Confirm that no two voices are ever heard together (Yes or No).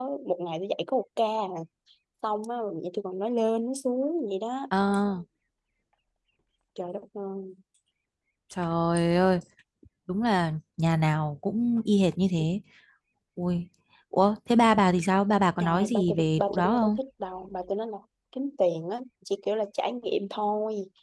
No